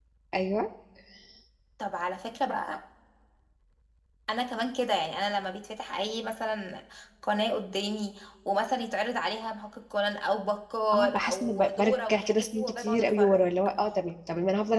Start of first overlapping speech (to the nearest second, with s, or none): 11 s